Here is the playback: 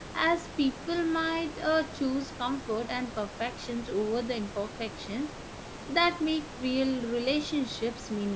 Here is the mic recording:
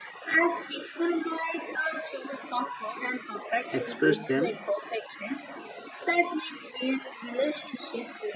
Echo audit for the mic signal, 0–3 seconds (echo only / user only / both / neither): echo only